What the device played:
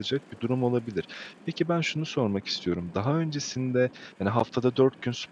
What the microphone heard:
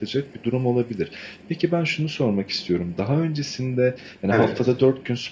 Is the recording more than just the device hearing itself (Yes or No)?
Yes